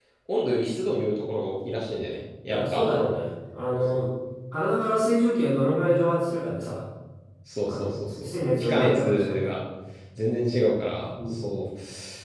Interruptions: present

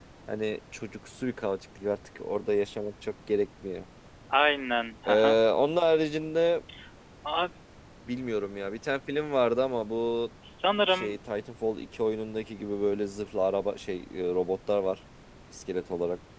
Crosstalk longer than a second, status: none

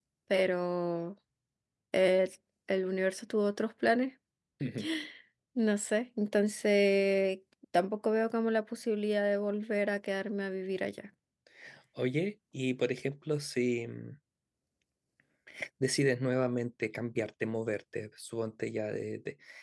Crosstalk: none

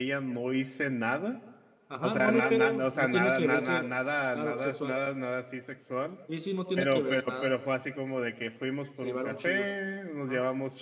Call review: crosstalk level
present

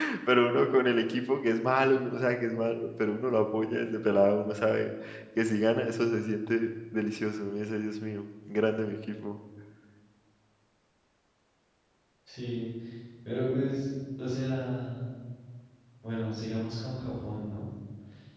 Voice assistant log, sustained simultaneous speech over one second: none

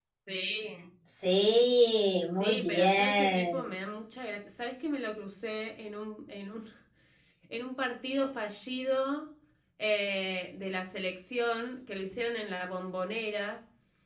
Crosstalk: present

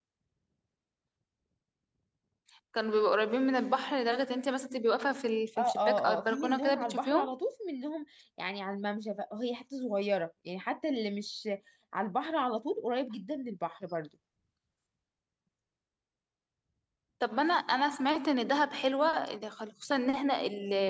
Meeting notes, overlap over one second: present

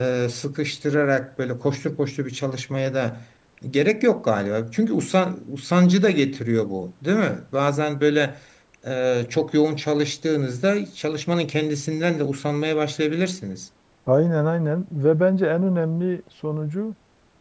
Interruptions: none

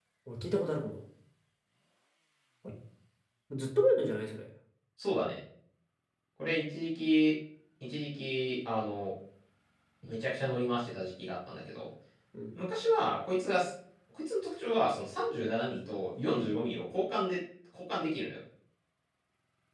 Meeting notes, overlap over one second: none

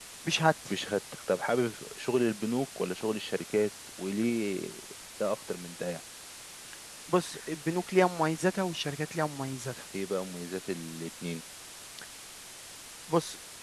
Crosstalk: none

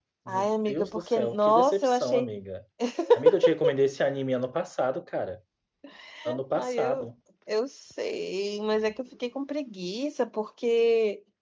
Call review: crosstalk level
present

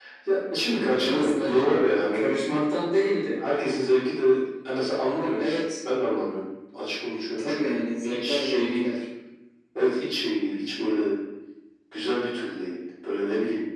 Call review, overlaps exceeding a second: present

